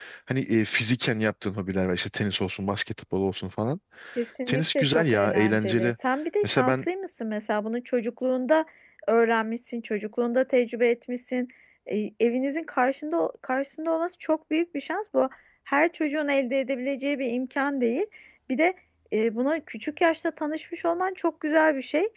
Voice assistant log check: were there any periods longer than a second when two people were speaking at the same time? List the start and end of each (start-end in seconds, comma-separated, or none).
4.5-5.9